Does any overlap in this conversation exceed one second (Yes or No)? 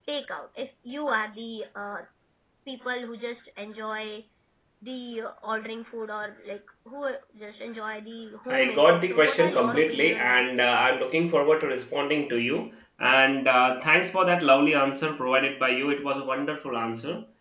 Yes